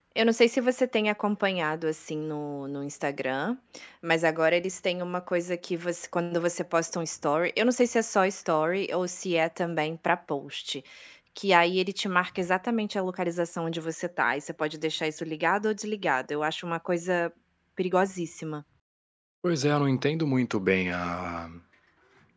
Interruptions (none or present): none